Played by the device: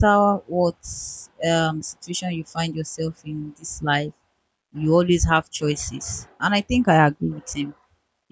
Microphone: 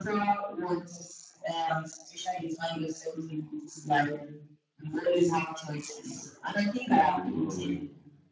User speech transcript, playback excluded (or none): yeah, you know, like